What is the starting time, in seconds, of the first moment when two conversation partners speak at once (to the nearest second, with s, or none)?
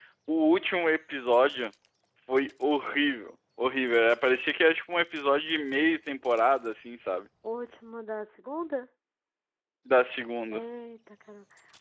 none